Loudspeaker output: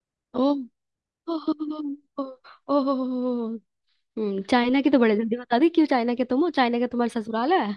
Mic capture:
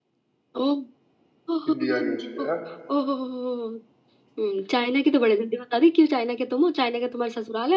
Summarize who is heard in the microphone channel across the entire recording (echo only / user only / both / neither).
both